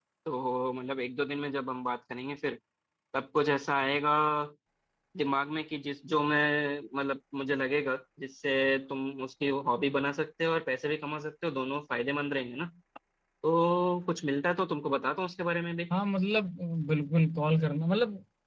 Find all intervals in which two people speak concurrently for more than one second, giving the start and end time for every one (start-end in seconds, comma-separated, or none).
none